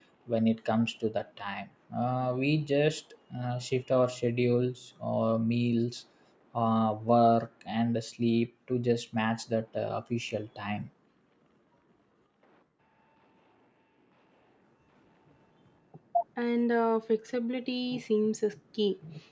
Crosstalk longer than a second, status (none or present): none